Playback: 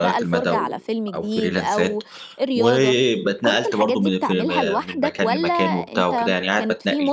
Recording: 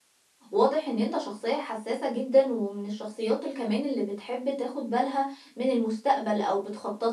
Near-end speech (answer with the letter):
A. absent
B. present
B